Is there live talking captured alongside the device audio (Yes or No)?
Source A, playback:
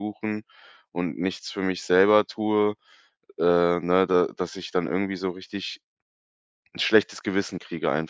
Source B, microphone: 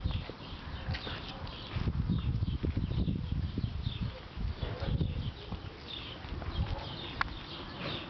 No